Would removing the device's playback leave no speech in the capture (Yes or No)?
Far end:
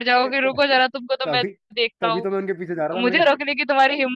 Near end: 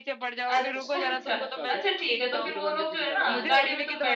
No